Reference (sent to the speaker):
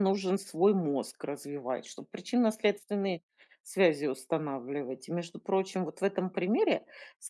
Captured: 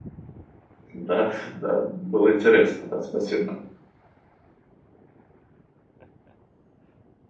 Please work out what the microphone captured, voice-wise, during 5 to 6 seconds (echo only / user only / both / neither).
neither